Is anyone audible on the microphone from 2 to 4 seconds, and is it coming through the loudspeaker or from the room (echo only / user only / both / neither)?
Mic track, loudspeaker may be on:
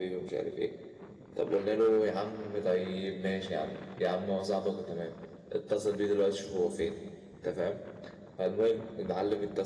echo only